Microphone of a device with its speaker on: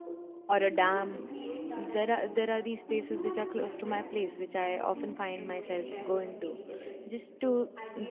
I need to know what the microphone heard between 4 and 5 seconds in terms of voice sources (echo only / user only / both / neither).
both